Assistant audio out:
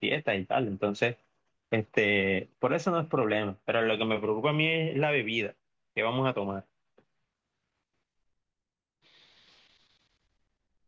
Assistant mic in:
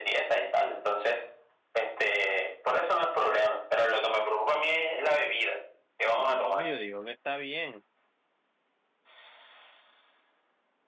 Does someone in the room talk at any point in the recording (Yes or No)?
Yes